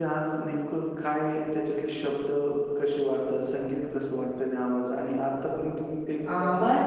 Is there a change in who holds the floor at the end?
Yes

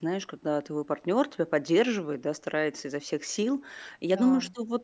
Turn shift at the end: No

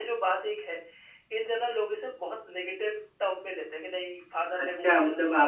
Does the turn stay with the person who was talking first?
No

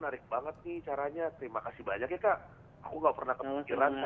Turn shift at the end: No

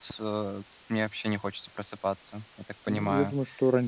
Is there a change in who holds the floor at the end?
Yes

